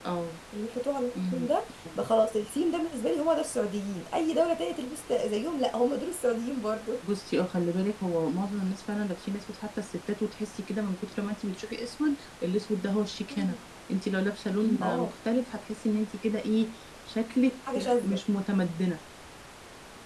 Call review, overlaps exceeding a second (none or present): none